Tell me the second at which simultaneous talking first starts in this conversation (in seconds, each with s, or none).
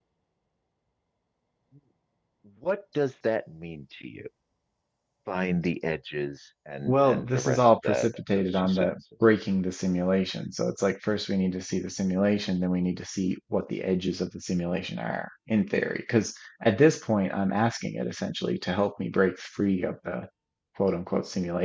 6.8 s